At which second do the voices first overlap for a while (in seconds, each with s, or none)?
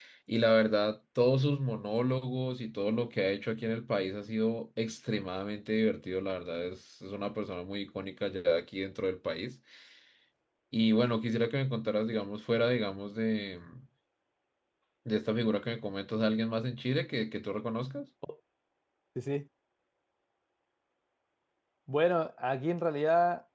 none